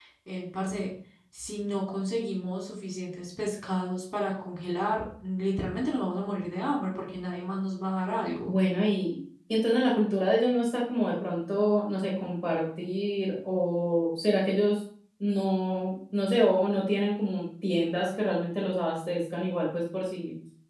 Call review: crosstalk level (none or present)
none